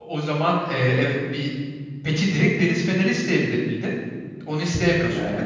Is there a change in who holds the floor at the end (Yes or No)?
Yes